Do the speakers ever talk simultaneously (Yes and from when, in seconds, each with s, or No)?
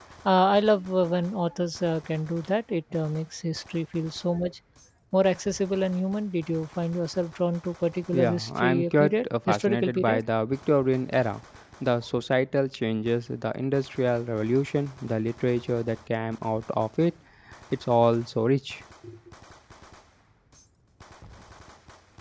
Yes, from 8.1 s